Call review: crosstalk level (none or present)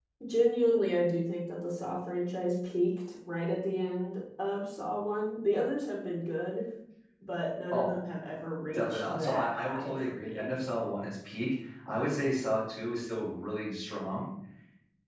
present